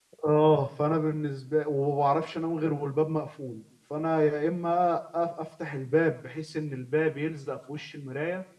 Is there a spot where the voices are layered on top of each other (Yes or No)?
No